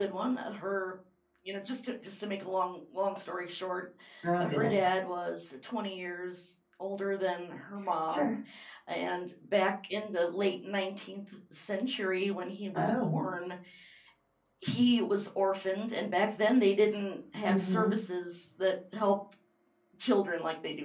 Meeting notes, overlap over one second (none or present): none